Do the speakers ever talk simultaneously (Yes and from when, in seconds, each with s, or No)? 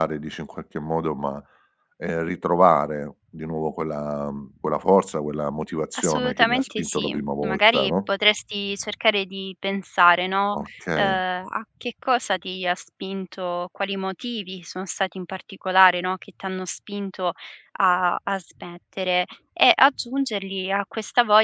Yes, from 6.0 s